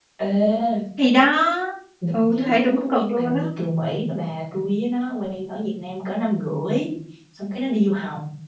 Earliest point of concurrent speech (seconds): 2.1 s

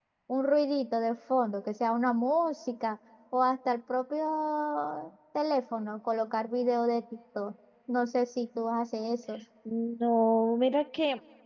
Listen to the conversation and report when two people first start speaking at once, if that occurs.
none

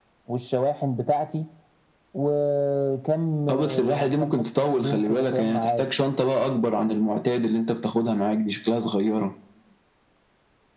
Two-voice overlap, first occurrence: 3.5 s

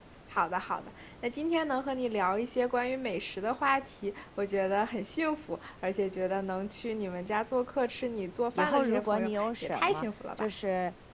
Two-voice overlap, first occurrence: 8.6 s

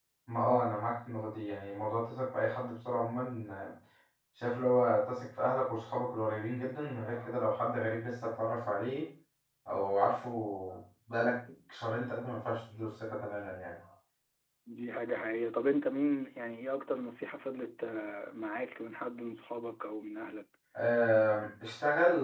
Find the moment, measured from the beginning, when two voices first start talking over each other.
none

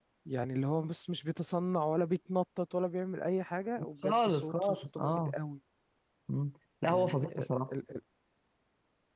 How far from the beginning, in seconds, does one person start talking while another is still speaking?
4.0 s

